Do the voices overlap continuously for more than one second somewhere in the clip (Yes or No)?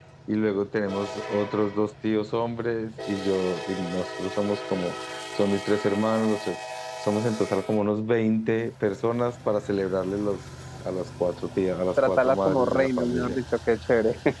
Yes